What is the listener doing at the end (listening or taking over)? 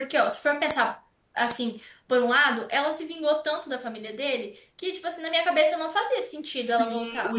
taking over